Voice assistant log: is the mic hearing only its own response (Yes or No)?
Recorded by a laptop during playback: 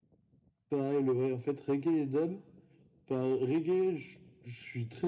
Yes